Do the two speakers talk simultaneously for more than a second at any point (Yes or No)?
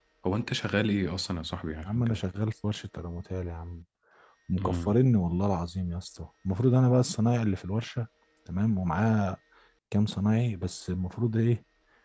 No